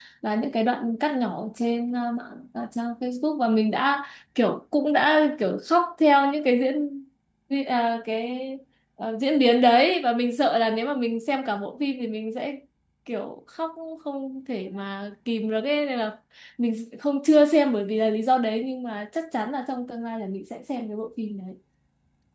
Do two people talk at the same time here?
No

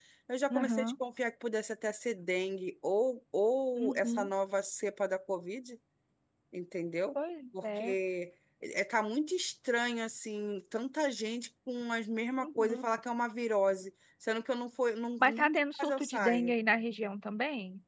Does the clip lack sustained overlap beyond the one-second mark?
No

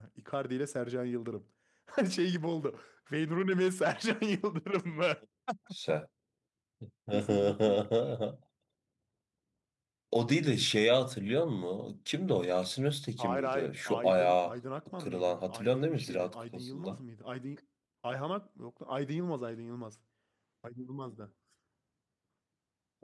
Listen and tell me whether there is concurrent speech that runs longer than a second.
Yes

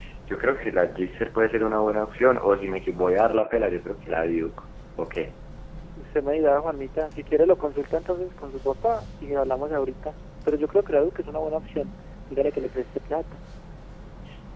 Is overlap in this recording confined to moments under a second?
Yes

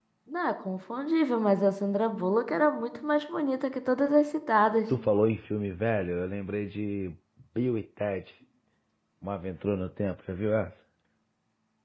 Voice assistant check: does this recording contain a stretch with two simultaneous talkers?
No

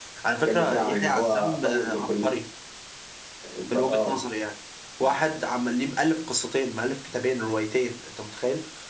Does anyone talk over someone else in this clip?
Yes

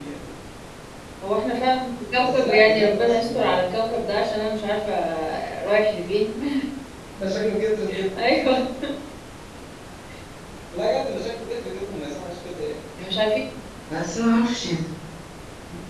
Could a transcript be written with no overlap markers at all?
No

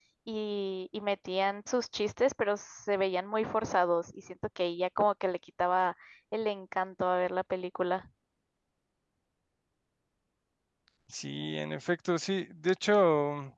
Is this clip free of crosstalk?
Yes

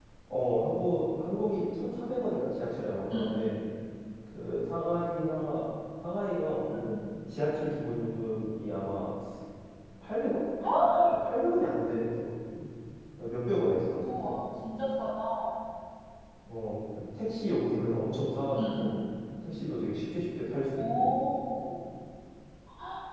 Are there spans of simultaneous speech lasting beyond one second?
No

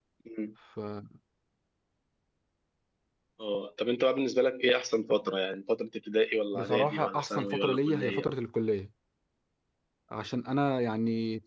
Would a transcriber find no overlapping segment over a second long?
No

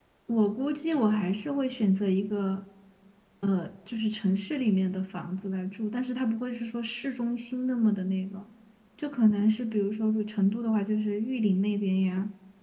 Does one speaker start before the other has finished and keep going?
No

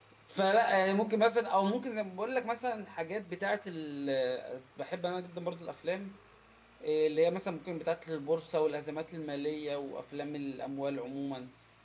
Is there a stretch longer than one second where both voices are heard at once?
No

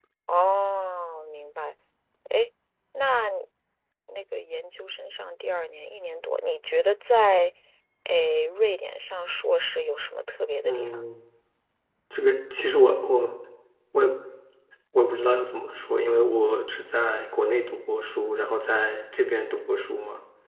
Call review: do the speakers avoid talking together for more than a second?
Yes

